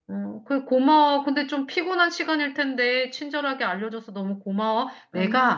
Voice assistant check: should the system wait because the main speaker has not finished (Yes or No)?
Yes